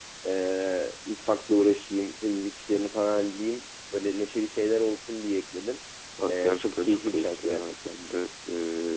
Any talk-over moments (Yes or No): Yes